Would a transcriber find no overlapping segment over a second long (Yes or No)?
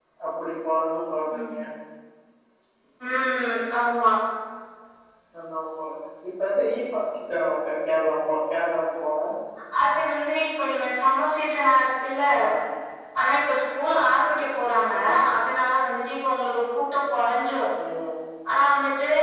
Yes